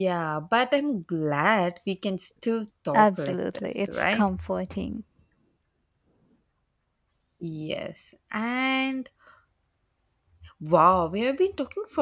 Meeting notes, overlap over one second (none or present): present